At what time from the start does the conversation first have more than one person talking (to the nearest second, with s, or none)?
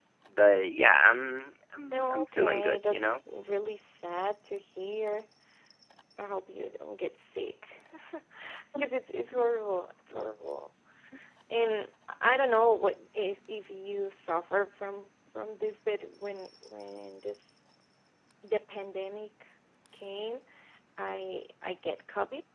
2 s